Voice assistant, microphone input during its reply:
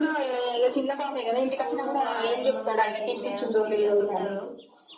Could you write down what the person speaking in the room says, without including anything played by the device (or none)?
స్కూల్లో వాళ్ళ ఆయమ్మలు వాళ్ళ టి మేడమ్స్ టీచర్స్ ఉంటరు